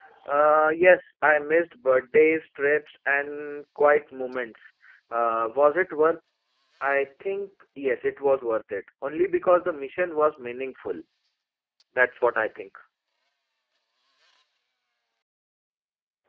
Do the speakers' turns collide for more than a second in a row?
No

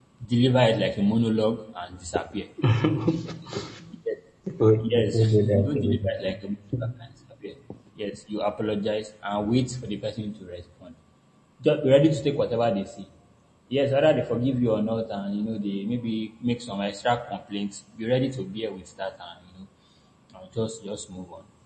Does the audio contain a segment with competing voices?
Yes, from 4.8 s

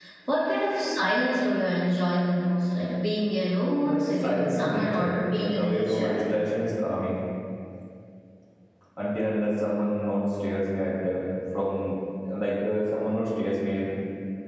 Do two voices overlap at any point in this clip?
Yes, from 3.8 s

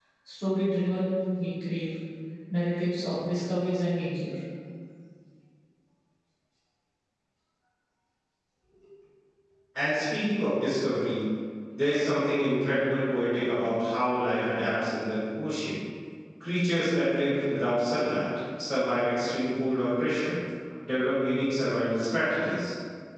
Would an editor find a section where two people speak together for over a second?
No

